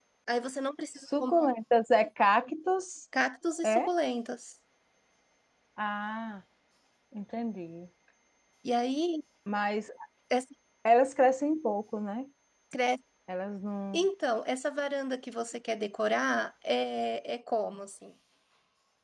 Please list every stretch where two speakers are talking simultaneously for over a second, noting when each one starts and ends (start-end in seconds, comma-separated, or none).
none